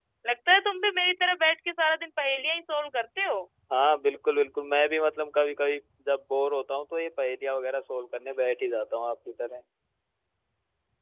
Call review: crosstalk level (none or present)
none